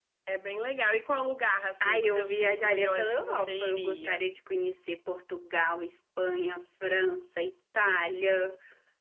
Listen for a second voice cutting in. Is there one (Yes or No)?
Yes